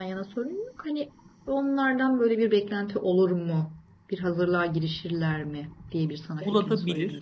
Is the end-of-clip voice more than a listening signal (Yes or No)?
Yes